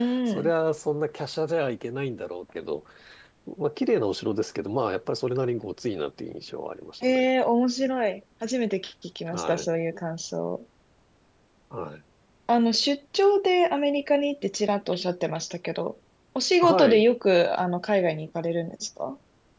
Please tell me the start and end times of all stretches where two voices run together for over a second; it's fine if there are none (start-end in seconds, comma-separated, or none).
none